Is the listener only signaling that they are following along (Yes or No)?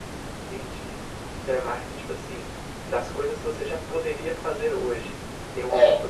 Yes